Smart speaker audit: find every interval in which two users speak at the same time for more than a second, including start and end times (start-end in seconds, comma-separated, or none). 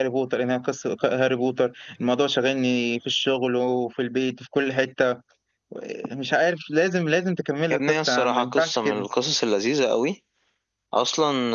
7.7-9.1